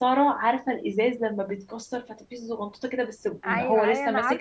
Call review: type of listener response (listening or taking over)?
taking over